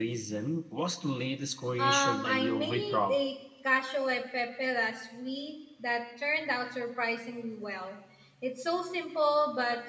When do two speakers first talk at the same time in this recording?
2 s

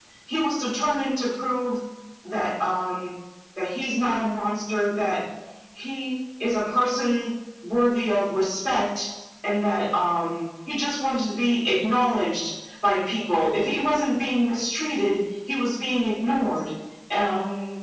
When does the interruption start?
none

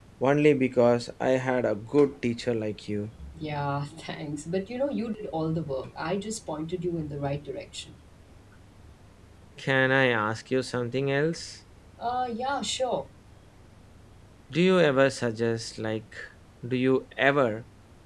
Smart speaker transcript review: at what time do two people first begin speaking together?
none

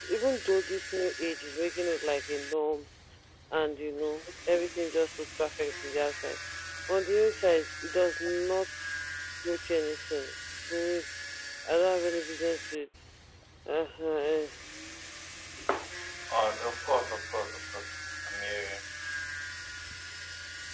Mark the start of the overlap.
none

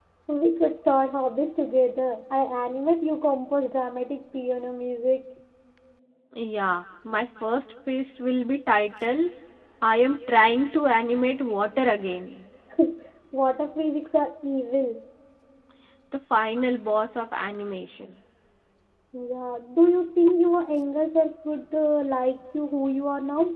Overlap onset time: none

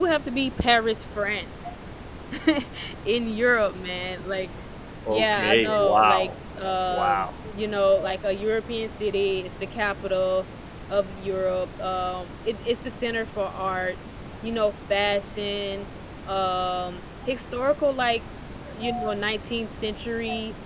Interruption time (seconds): 5 s

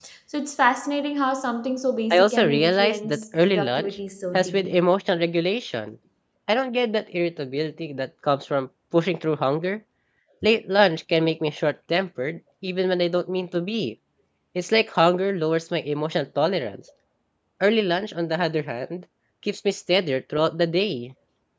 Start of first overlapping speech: 2 s

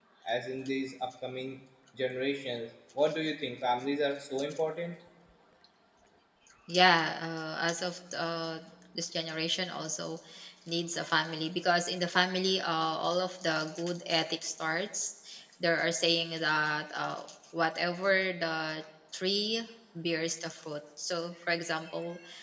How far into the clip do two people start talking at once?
none

